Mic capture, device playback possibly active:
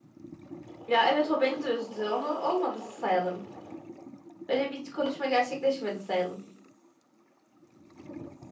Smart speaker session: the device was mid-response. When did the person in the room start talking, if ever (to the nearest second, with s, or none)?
none